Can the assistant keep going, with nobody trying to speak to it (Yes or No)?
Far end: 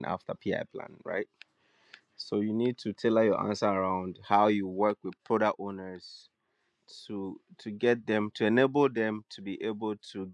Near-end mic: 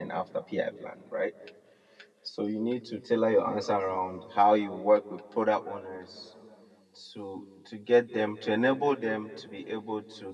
Yes